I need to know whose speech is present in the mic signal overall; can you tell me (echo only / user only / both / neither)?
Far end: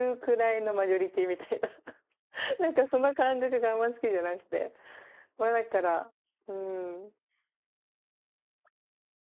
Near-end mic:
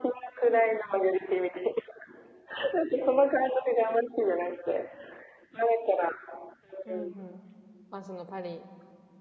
both